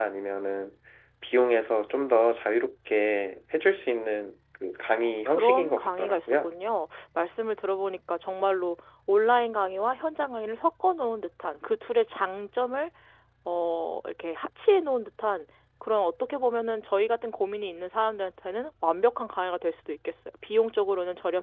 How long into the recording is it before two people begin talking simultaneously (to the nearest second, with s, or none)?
5 s